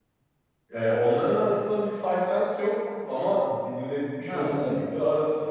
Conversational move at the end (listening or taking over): listening